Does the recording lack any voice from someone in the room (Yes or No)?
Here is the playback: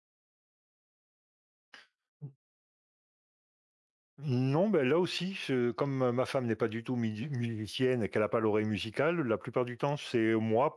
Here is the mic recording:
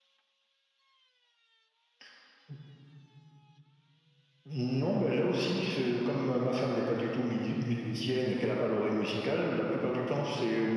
Yes